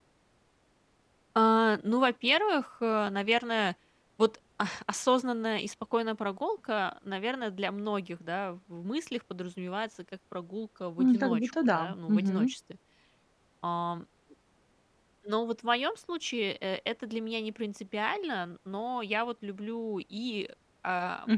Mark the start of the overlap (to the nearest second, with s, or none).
11 s